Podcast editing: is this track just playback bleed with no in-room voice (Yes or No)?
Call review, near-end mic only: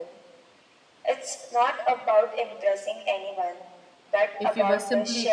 No